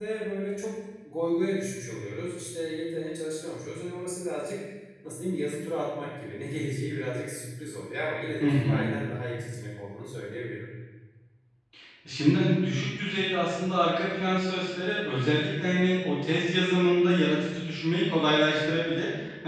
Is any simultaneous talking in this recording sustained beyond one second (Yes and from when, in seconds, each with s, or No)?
No